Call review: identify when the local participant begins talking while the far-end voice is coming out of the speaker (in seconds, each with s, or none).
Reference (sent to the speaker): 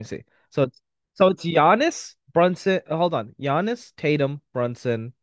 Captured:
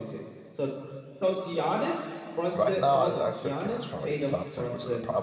2.6 s